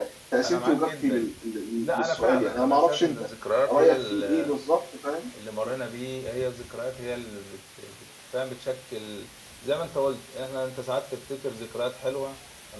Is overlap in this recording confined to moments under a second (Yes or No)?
No